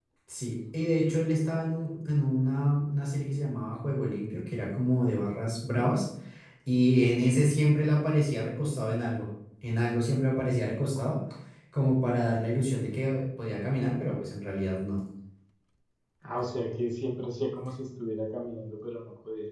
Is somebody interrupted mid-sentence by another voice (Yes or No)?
No